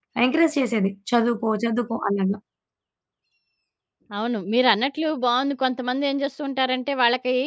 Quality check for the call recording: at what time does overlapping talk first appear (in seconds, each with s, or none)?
none